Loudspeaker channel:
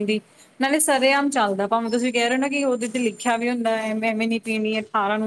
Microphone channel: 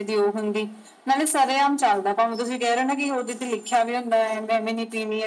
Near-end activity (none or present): none